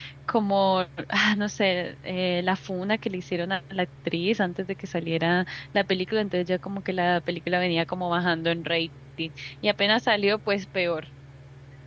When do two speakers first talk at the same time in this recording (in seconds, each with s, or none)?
none